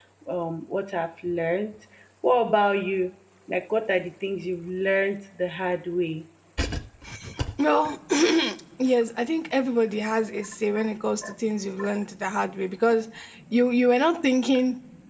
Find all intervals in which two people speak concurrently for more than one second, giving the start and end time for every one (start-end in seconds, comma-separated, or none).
none